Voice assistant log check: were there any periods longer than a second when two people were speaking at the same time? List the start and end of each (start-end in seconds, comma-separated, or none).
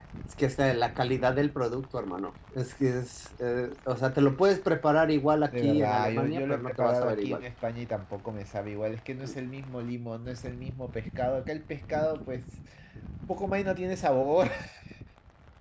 5.5-7.4